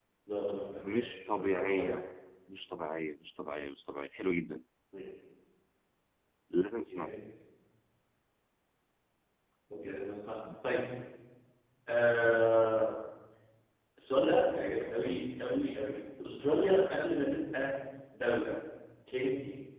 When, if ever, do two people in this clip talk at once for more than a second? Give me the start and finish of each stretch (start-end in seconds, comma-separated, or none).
0.8-2.0